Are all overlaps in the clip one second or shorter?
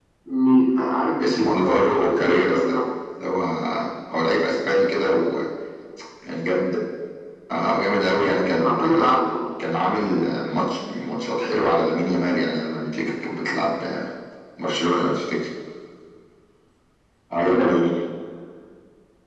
No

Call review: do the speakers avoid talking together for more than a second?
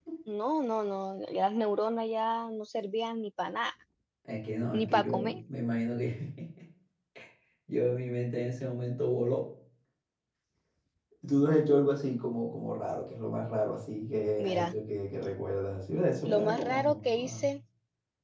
No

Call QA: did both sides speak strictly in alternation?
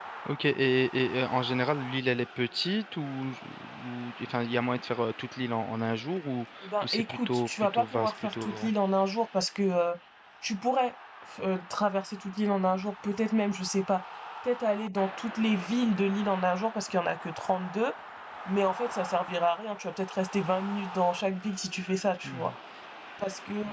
No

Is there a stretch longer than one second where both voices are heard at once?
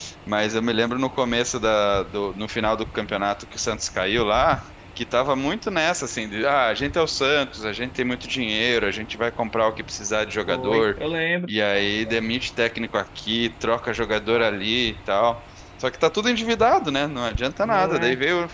No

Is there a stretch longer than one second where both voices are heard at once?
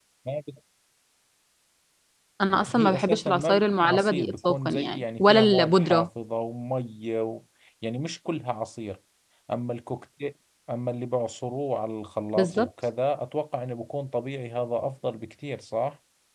Yes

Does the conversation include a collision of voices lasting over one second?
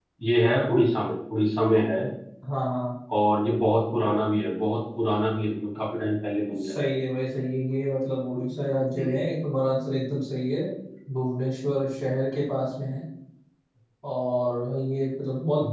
No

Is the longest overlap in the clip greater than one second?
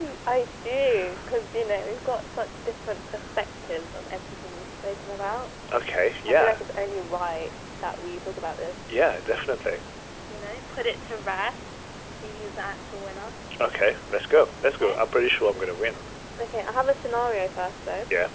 No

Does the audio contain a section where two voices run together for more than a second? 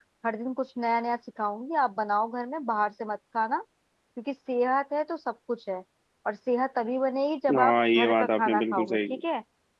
Yes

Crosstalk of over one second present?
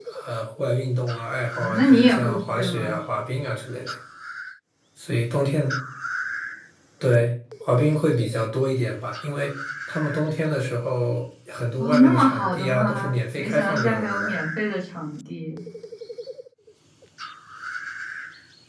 Yes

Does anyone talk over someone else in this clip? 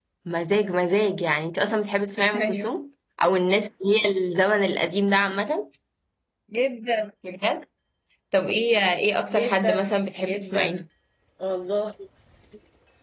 Yes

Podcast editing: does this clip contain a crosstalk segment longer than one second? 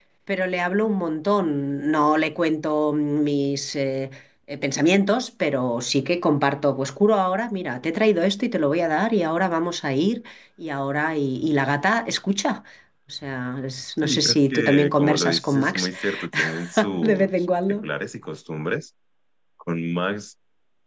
Yes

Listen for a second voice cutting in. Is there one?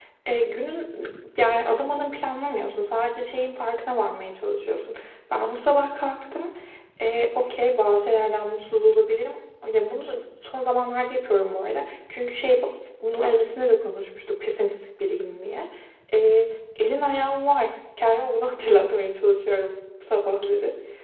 No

